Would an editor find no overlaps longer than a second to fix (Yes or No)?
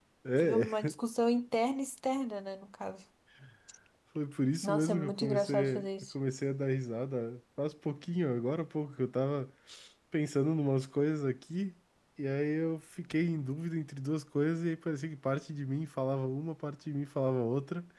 No